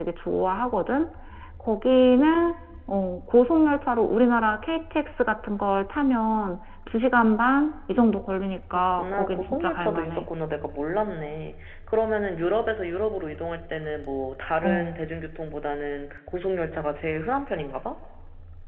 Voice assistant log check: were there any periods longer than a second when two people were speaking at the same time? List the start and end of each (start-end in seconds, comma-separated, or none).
8.7-10.3